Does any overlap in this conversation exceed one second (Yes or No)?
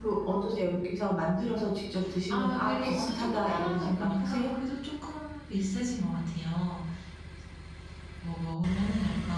Yes